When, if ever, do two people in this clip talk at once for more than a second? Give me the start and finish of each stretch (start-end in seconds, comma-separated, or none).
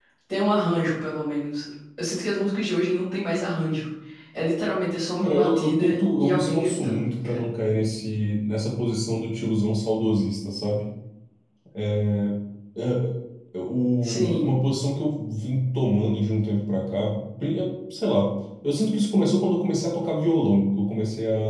5.2-7.4